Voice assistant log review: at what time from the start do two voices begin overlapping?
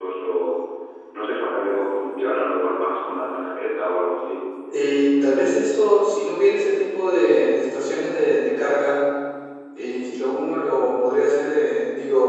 none

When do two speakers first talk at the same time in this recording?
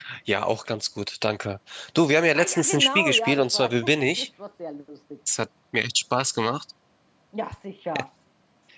2.4 s

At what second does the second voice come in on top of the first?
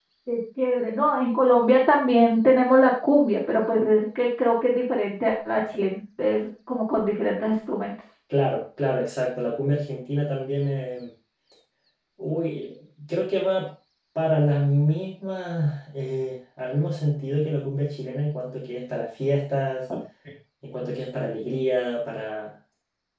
none

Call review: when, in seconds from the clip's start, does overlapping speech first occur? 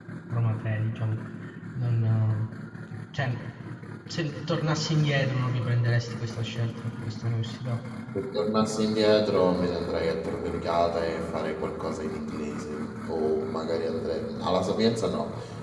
none

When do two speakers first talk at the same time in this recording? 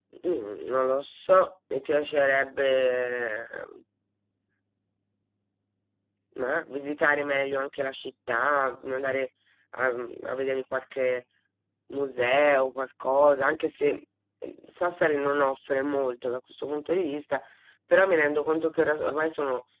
none

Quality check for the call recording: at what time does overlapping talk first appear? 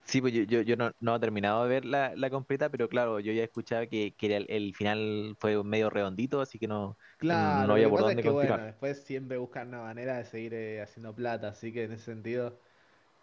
7.2 s

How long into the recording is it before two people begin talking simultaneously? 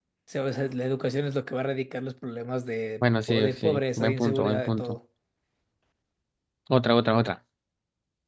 3.3 s

